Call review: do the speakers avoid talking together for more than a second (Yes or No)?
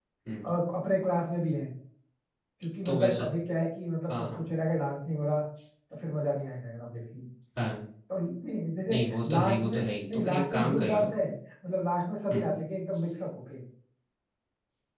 No